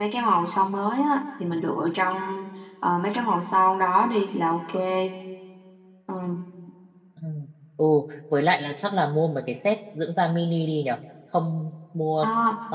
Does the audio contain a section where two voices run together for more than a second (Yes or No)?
No